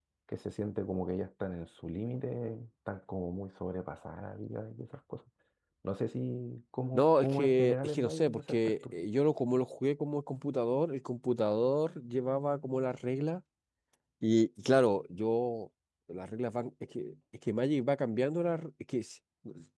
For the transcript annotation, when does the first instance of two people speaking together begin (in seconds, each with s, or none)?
6.9 s